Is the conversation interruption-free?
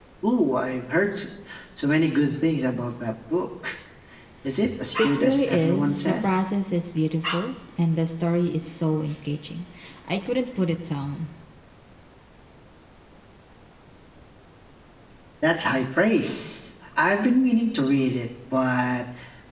No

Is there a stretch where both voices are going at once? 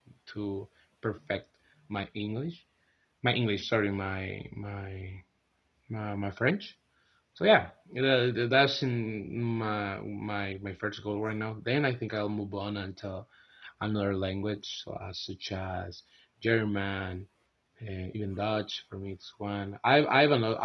No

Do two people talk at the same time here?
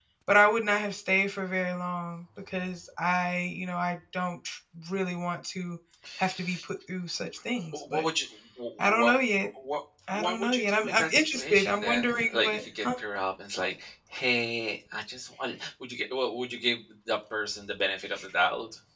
Yes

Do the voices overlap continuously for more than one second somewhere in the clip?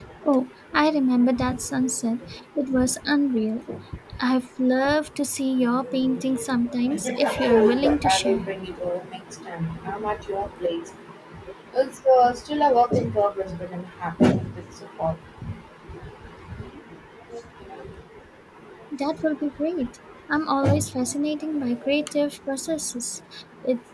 Yes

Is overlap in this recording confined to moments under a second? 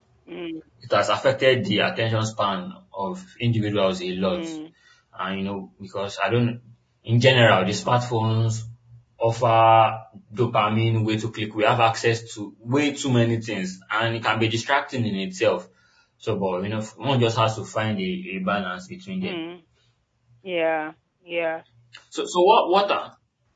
Yes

